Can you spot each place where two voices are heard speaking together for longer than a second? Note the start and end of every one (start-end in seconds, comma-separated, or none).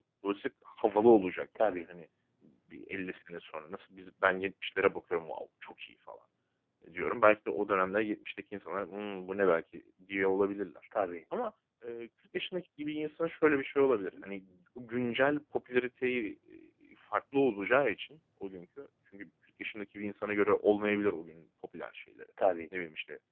none